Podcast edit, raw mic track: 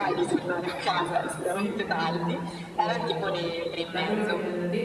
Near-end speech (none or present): present